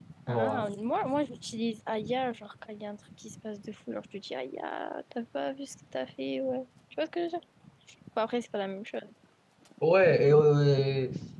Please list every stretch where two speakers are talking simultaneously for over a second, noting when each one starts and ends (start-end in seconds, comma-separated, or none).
none